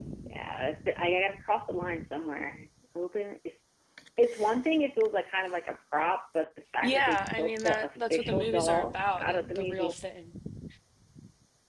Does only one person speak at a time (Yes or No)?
No